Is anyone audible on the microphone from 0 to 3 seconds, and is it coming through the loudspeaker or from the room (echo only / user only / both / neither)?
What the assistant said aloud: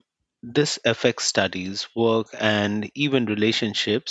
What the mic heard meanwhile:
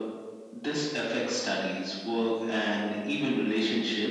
echo only